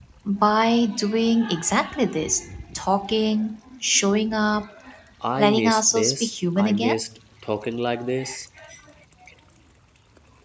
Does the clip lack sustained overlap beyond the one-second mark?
No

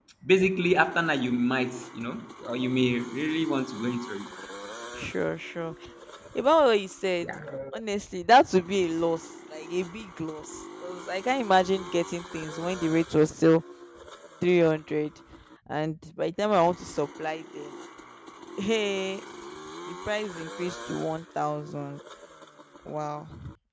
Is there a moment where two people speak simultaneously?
No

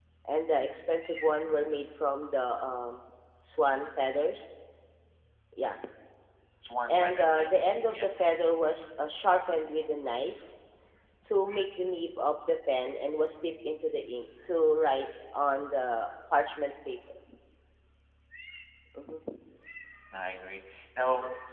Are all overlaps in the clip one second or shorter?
No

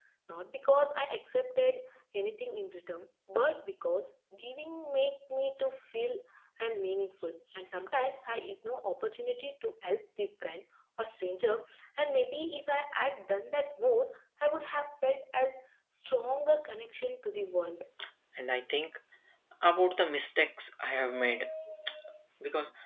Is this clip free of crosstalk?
Yes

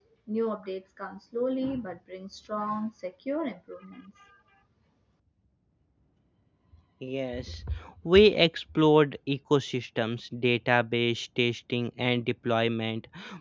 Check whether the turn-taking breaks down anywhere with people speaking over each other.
No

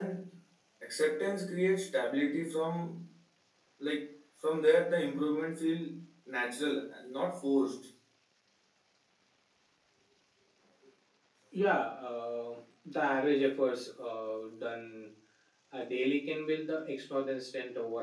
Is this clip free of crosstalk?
Yes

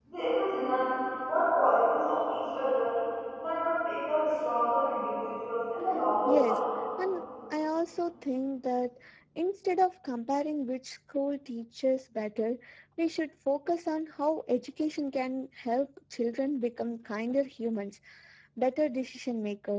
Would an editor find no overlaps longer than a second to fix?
Yes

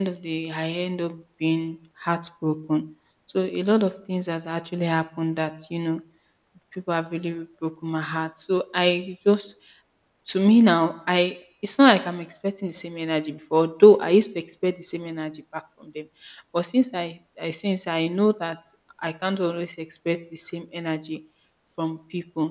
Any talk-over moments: No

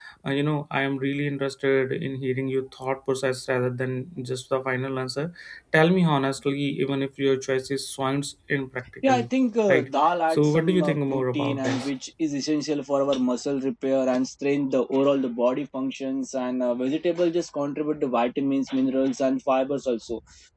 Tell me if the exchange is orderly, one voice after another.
No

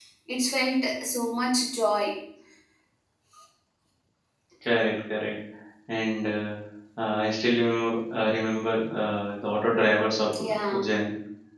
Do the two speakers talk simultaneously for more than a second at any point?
No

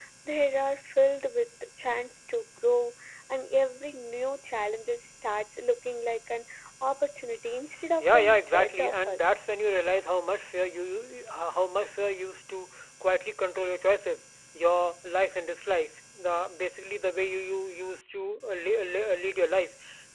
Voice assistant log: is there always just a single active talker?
No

